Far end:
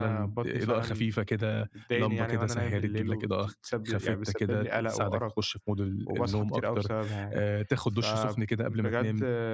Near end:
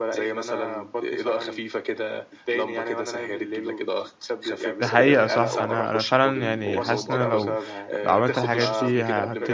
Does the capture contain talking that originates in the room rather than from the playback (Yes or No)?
Yes